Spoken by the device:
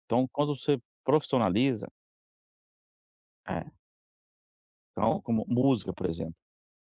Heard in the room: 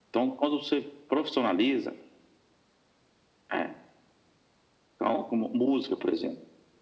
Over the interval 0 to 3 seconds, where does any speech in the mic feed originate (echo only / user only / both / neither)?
echo only